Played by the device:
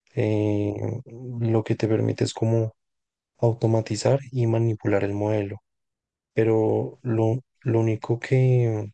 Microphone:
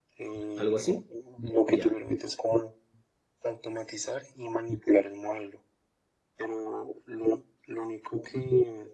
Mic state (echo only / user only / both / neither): both